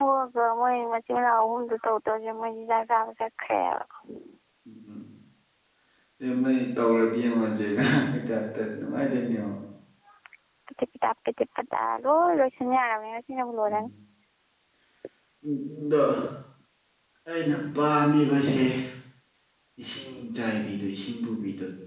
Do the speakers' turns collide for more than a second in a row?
No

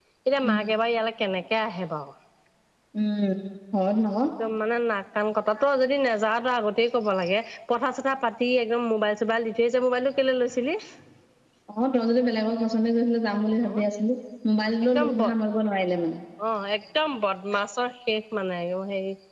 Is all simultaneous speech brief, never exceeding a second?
Yes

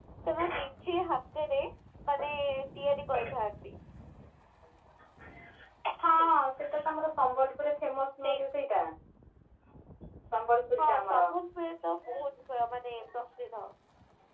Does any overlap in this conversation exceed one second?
No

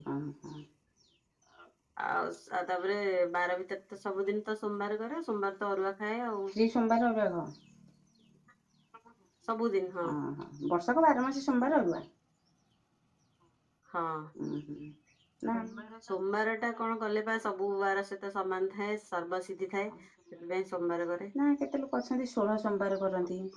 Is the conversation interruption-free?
Yes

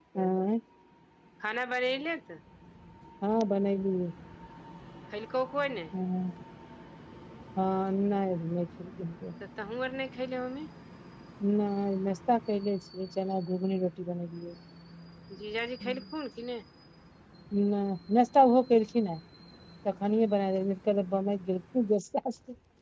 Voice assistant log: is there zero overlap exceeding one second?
Yes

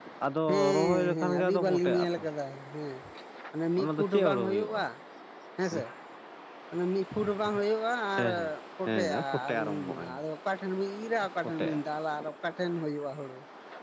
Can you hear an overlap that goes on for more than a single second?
Yes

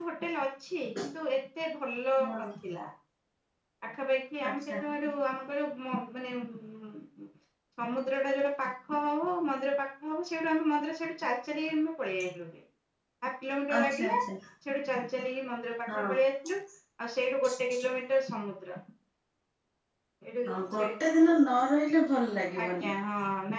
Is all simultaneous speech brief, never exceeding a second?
Yes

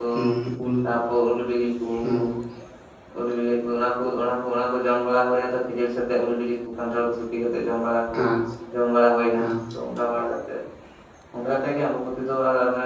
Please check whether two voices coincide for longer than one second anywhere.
No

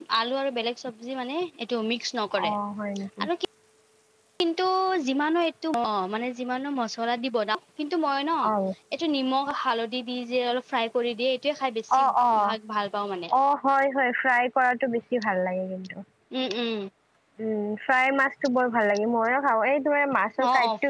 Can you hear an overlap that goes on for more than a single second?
No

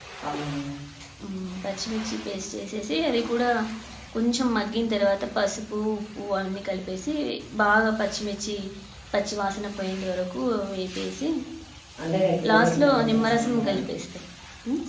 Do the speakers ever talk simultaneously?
Yes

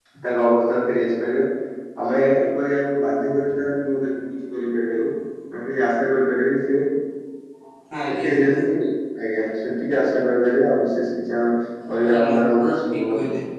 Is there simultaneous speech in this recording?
Yes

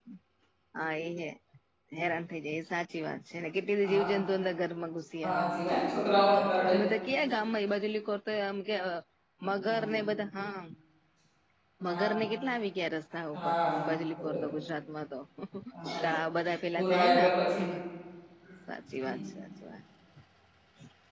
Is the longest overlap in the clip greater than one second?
No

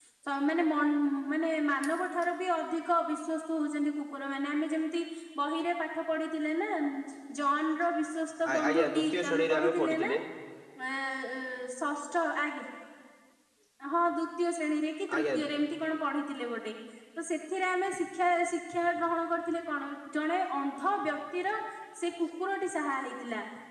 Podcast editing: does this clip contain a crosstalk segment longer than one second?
Yes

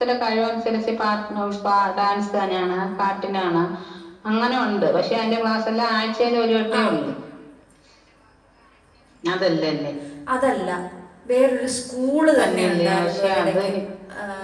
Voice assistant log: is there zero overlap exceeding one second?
No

